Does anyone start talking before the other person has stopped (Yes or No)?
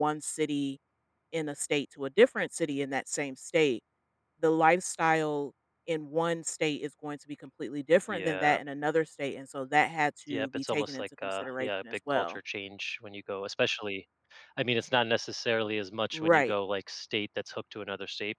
Yes